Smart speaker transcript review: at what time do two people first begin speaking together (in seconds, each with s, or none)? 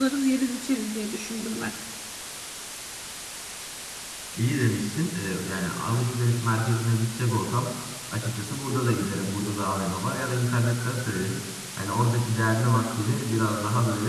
none